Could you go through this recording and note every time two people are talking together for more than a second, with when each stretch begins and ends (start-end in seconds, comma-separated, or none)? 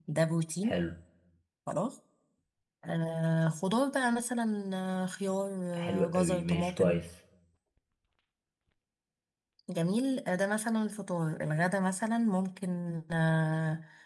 5.7-7.0